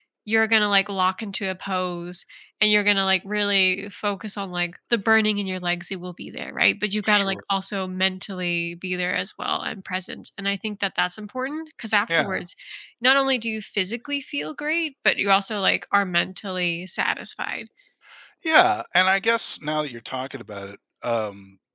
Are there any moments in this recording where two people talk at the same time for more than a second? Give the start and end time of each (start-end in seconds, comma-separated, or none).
none